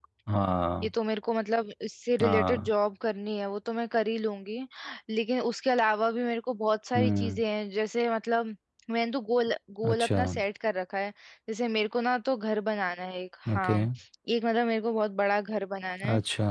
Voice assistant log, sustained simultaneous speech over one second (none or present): none